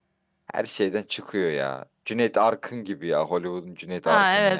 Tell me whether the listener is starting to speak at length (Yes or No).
Yes